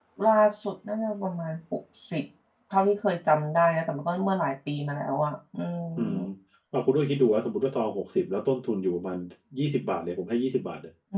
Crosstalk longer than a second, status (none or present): none